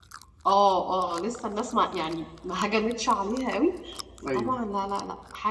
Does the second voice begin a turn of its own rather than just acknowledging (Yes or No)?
No